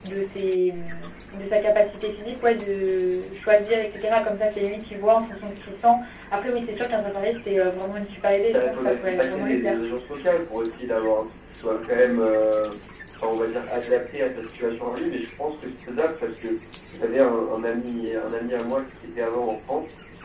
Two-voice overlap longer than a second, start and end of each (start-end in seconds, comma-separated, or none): 8.5-9.8